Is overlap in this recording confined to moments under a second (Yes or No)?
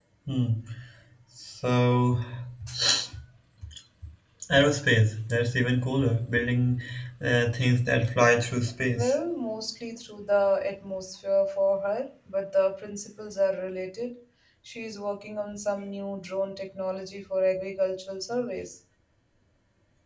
Yes